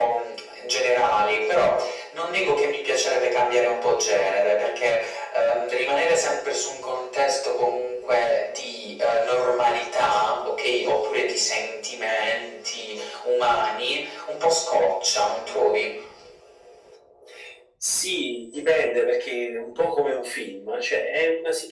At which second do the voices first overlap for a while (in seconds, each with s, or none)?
none